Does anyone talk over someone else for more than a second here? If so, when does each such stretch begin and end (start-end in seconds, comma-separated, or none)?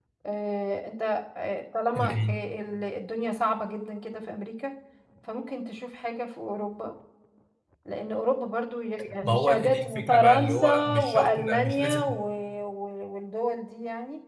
9.2-12.0